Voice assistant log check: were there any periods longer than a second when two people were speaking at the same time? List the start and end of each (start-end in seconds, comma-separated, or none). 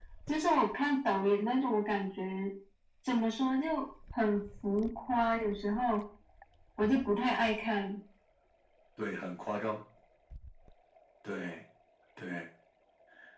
none